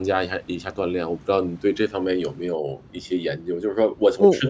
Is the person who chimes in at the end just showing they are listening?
Yes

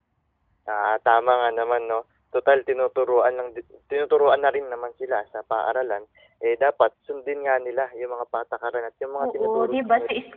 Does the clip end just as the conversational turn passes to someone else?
Yes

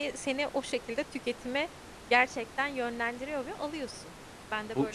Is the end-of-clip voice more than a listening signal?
Yes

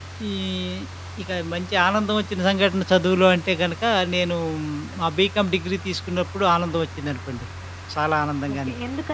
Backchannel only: No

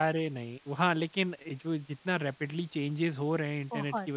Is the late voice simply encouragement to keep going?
Yes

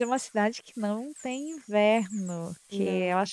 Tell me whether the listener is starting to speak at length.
No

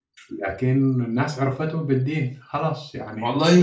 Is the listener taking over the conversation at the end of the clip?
Yes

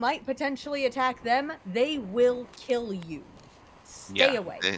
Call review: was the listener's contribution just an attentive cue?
No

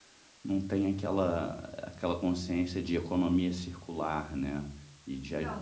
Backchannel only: No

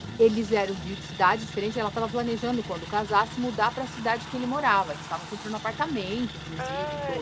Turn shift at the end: Yes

